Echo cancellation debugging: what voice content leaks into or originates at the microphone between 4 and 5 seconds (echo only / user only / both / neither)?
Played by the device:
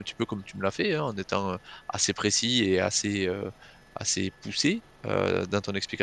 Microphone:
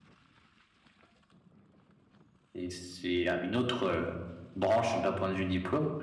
user only